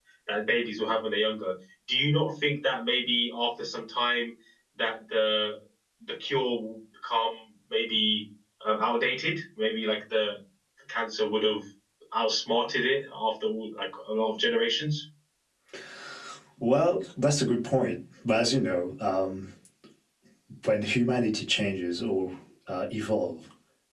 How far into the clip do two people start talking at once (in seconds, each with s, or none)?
none